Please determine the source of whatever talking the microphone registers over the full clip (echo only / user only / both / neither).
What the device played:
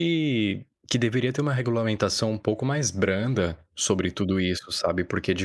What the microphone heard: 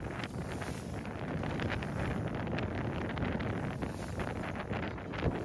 neither